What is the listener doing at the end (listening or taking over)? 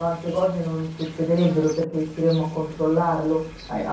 listening